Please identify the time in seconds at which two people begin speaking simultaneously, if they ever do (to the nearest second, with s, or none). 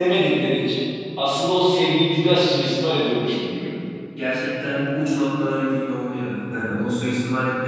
none